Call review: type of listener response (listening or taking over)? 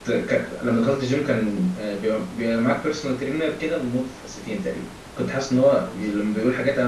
listening